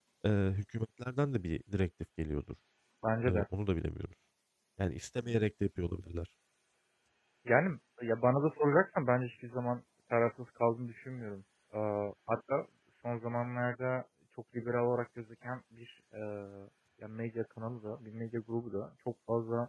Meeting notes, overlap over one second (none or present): none